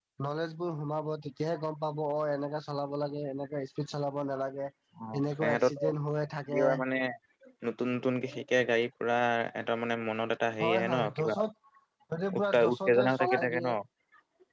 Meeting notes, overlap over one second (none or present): present